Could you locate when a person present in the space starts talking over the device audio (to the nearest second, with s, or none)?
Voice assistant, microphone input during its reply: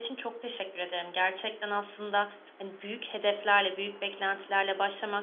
none